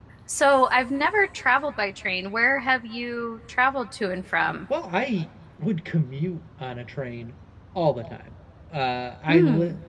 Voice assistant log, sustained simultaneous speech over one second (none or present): none